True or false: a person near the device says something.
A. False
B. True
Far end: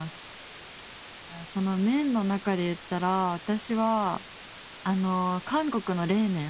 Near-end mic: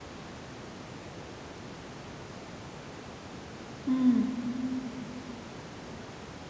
B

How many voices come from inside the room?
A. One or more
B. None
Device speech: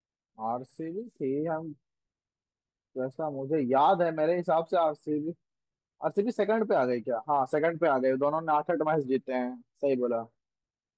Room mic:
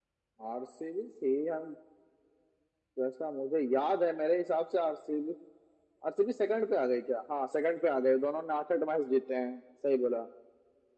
B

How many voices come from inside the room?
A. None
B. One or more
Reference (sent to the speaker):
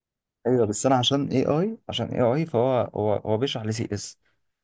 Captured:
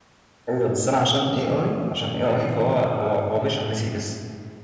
B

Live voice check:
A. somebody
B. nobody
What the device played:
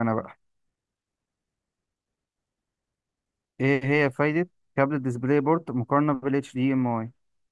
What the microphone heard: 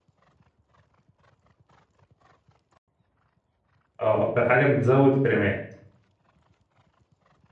A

